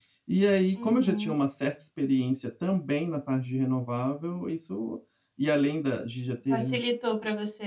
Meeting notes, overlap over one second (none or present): none